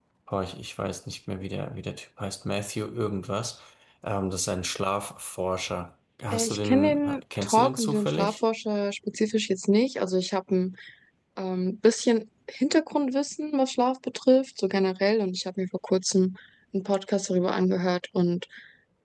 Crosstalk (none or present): present